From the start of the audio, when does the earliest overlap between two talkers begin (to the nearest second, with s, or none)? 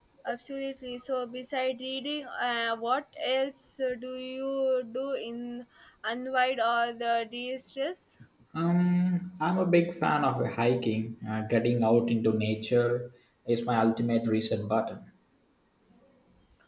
none